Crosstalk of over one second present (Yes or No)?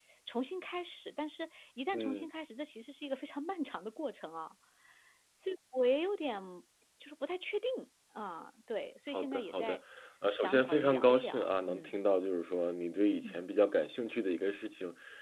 Yes